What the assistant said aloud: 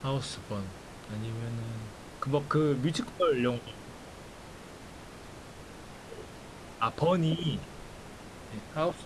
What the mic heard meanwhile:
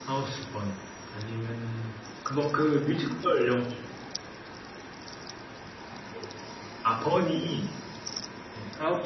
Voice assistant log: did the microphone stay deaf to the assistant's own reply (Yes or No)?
No